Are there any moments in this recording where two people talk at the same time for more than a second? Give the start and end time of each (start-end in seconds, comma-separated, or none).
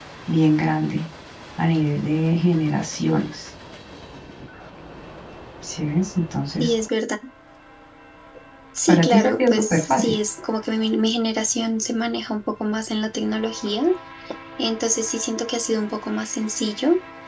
8.9-10.2